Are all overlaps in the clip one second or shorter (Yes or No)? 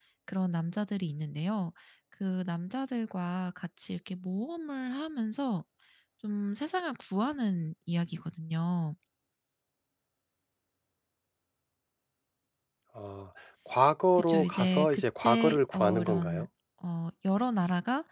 No